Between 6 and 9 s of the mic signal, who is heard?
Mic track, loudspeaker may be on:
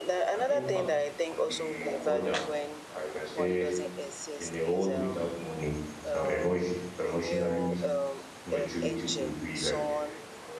both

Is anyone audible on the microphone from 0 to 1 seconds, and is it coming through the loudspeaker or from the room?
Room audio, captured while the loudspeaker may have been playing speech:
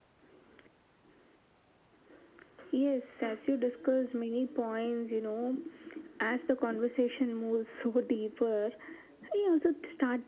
neither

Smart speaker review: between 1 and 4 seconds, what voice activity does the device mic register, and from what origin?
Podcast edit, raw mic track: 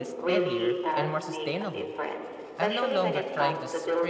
both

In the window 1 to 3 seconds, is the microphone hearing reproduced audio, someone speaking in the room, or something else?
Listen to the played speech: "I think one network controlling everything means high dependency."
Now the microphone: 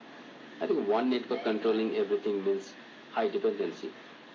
both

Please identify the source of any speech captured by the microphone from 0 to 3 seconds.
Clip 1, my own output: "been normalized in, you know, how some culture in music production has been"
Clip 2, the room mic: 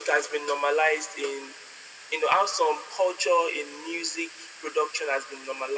echo only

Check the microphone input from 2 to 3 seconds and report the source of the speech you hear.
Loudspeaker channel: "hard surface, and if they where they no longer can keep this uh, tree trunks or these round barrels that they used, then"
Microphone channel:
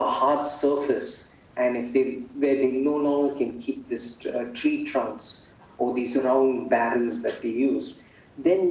echo only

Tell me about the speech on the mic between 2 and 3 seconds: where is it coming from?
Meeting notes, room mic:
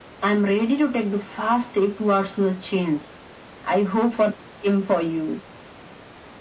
echo only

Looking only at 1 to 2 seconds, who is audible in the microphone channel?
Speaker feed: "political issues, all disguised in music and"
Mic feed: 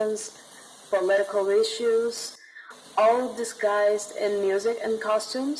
echo only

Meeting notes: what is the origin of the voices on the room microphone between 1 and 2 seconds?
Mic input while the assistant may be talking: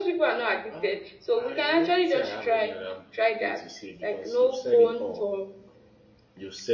both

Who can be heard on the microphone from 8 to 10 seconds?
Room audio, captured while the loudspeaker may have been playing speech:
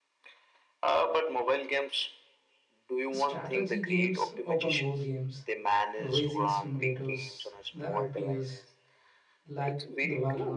both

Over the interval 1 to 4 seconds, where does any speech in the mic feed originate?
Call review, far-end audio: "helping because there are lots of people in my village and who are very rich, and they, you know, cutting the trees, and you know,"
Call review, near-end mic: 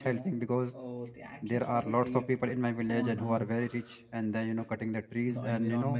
both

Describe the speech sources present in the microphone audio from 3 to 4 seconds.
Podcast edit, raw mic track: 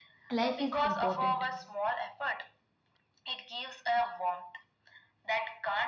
echo only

